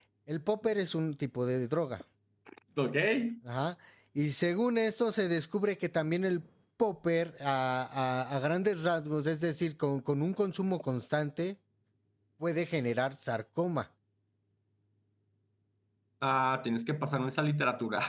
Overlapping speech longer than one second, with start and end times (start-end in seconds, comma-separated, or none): none